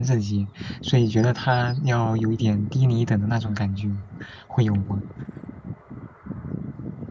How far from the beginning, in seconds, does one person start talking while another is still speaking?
none

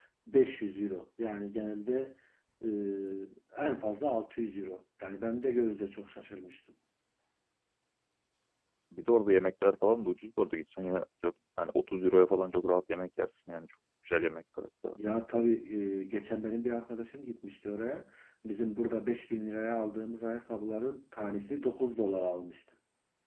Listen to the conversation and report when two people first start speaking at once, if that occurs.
none

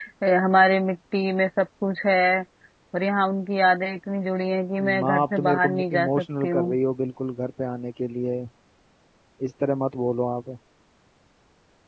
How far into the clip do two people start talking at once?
4.8 s

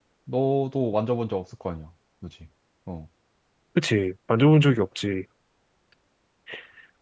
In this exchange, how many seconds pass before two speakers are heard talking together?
none

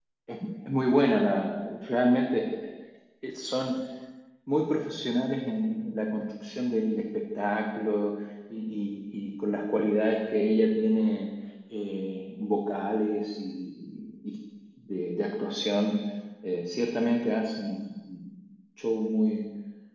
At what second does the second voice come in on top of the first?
none

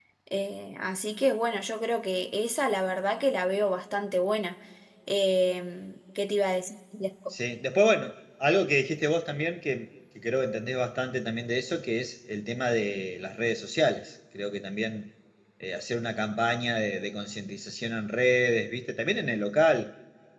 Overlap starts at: none

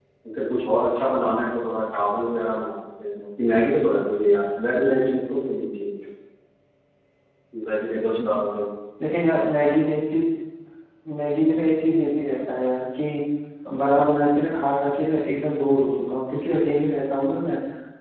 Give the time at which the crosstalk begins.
none

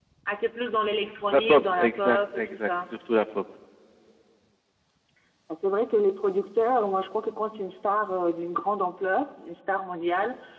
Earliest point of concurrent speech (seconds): 1.3 s

